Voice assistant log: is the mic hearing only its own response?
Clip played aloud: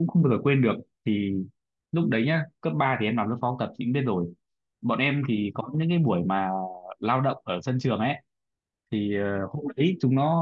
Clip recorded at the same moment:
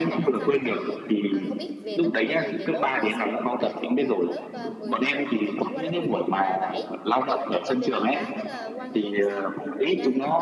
No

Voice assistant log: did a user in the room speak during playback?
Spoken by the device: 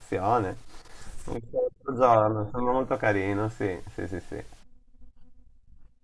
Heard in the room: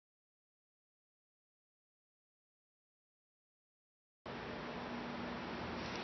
No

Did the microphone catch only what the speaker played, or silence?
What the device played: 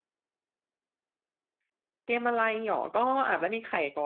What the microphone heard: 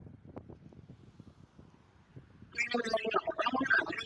Yes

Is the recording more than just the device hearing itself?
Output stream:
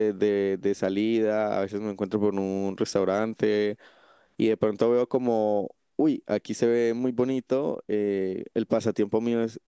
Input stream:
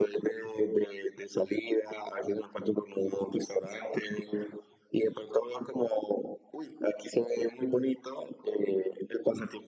No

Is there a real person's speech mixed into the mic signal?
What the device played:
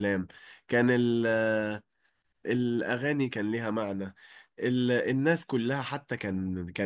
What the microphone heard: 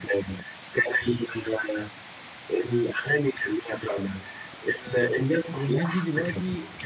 Yes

